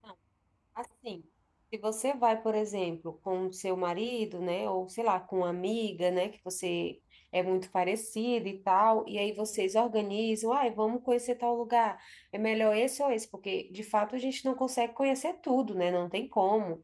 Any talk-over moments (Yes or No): No